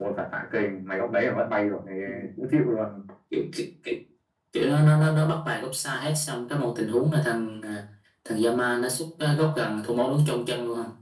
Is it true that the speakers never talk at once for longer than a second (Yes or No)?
Yes